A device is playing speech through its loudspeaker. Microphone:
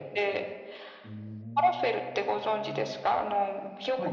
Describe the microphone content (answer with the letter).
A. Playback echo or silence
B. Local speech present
B